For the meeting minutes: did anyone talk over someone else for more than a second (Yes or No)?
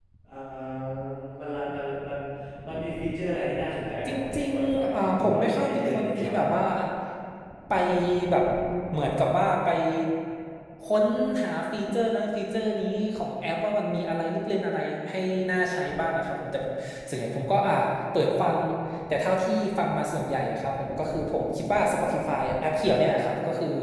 Yes